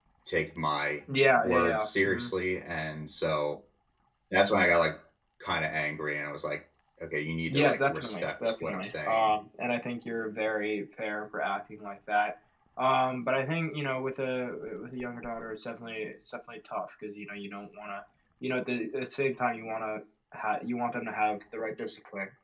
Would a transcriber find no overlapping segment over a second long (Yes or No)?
No